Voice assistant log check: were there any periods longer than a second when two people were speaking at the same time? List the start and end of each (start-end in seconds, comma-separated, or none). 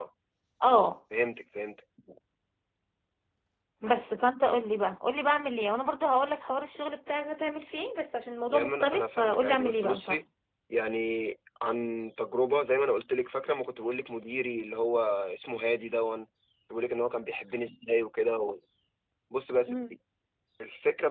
8.5-10.2